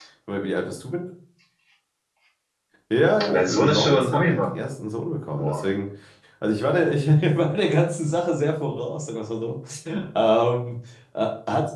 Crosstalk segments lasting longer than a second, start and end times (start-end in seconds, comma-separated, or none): 3.3-4.6